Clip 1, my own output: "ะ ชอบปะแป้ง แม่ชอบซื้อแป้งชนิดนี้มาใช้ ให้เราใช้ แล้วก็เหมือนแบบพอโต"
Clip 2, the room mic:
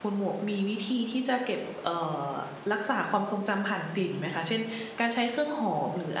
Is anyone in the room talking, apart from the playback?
Yes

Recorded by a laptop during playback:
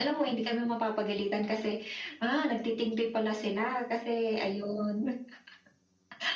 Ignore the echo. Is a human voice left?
No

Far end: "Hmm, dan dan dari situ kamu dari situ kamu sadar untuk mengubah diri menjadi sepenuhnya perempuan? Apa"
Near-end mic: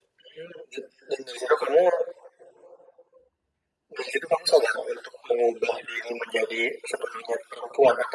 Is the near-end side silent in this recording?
Yes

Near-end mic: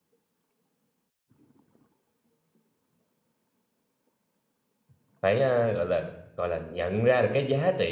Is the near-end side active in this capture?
Yes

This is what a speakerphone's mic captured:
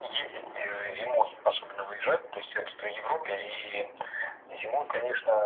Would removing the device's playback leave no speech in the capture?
Yes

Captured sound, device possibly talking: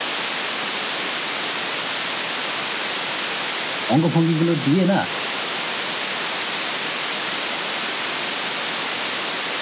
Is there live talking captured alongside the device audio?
Yes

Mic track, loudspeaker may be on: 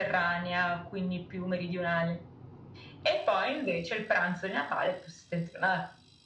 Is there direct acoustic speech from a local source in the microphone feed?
No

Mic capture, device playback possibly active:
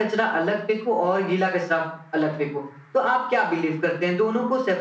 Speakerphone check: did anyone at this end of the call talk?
No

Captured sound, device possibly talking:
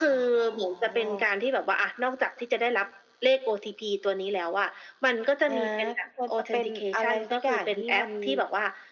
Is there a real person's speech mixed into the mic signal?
No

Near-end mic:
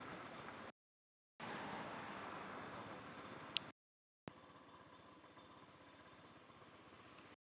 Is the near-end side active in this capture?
No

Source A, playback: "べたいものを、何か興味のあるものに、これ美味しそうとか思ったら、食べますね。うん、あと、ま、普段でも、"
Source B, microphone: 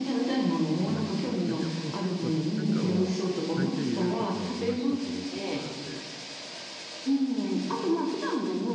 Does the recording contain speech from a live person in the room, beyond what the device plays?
Yes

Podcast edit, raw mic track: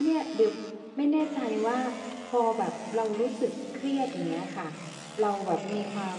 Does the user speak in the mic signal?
Yes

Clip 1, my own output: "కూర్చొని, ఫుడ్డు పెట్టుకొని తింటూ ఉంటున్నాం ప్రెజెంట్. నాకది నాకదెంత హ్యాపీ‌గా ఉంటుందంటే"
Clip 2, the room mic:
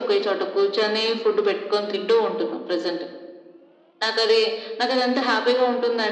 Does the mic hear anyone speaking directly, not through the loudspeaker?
No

